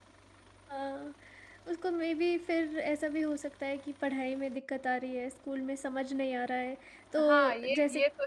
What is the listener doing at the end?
taking over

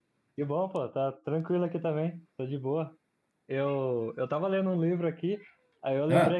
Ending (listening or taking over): listening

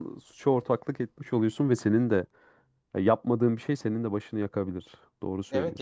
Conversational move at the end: taking over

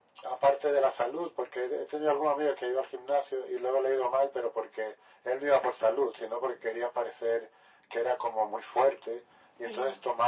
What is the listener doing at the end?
listening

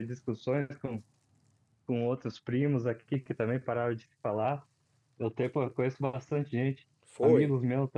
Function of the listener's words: listening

